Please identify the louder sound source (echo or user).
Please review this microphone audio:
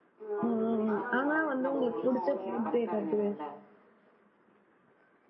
user